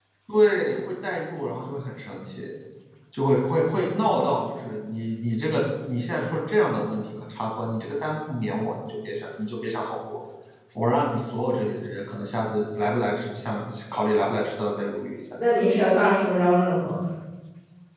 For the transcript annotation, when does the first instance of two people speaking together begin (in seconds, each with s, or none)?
none